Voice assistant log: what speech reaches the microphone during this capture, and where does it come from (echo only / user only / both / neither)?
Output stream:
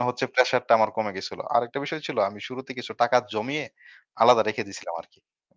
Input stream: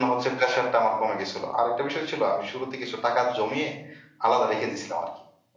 echo only